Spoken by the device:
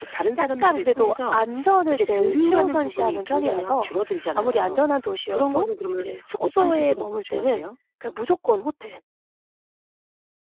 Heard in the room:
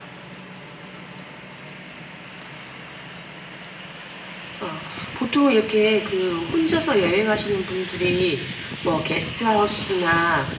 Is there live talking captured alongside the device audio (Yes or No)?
Yes